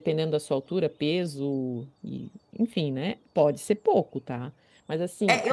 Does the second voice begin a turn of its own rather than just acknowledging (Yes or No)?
Yes